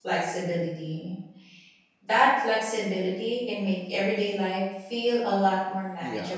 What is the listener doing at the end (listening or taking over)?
taking over